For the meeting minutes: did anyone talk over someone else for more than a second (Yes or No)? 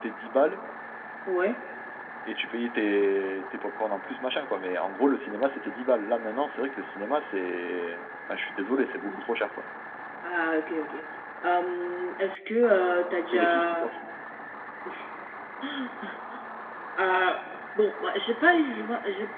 No